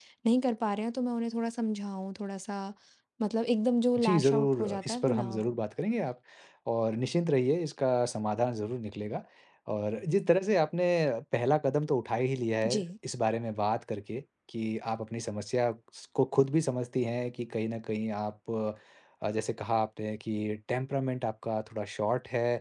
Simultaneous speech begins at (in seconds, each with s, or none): 4.0 s